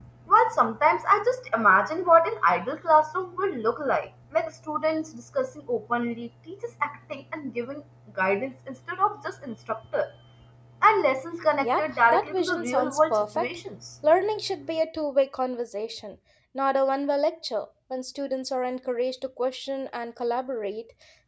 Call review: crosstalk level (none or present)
present